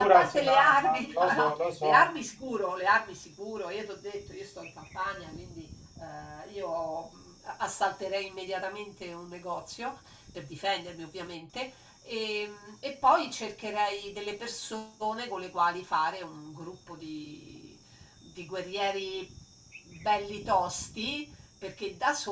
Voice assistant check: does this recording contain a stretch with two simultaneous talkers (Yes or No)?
Yes